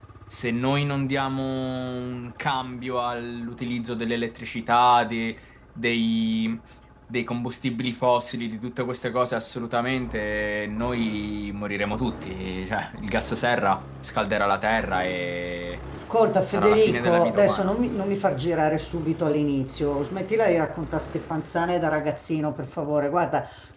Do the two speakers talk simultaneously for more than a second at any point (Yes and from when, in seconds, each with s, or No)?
Yes, from 16.4 s